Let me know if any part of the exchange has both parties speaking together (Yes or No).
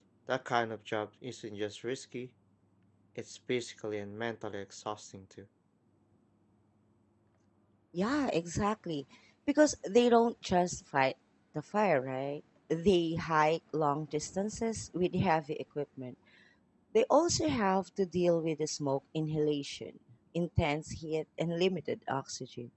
No